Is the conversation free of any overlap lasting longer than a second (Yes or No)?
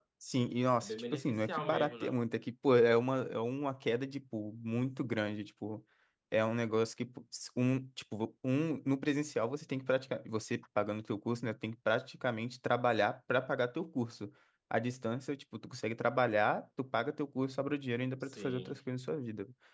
No